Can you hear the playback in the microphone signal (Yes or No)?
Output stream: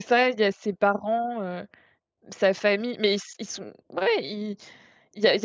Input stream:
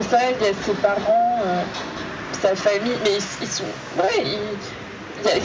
Yes